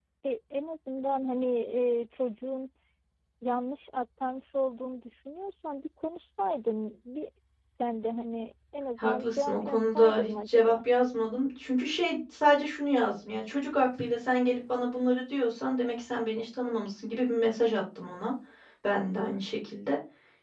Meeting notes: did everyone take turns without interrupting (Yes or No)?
No